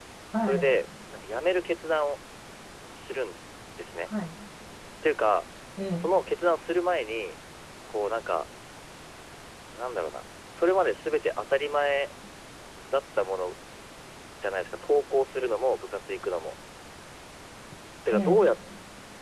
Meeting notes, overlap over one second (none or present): none